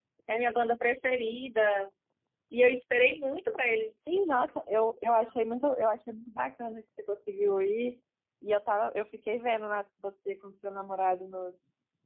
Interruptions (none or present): none